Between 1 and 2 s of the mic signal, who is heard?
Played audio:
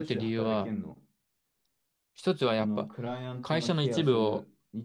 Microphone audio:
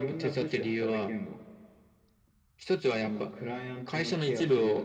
echo only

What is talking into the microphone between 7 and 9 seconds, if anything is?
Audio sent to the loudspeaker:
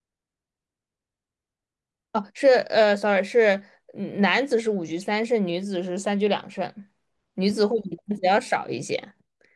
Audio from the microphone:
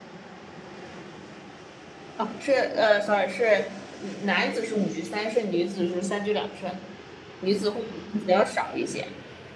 echo only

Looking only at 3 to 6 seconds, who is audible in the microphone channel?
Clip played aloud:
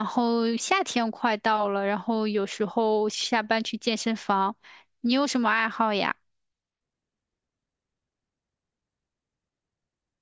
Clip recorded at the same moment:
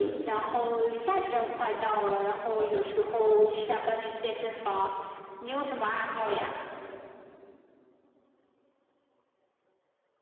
echo only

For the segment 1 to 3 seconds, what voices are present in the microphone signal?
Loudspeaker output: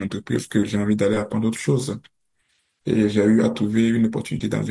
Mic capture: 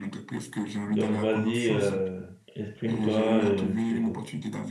both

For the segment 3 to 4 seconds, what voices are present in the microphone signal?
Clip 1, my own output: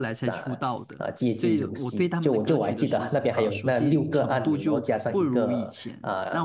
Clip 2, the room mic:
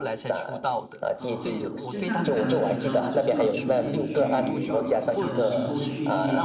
both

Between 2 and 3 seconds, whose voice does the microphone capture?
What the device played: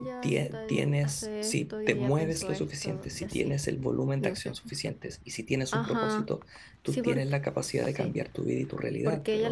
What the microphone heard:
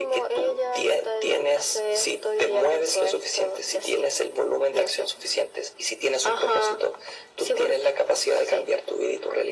echo only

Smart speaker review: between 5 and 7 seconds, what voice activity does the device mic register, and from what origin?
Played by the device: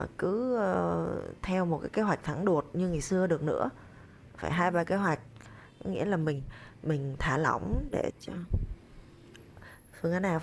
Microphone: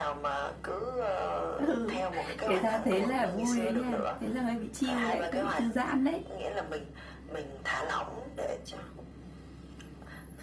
both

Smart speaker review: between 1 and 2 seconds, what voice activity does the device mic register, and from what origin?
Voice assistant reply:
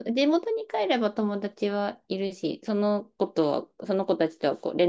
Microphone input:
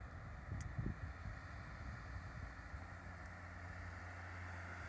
neither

